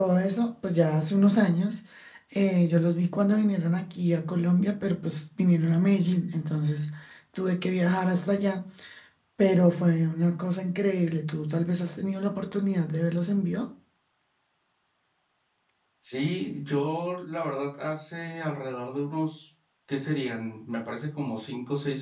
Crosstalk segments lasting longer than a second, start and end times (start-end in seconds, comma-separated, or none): none